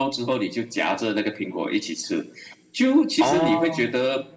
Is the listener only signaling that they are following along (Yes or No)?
Yes